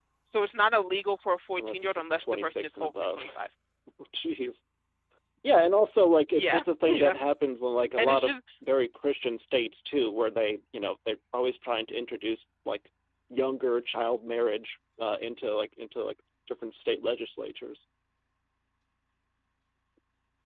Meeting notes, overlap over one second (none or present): present